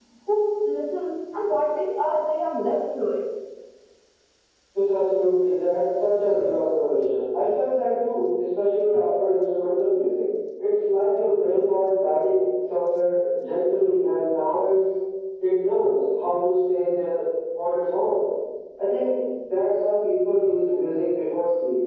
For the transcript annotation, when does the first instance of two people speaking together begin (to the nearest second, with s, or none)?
none